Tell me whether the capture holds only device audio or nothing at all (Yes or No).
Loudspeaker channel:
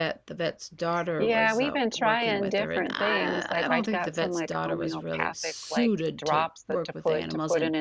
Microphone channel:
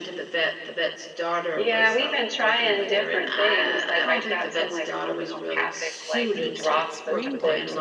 No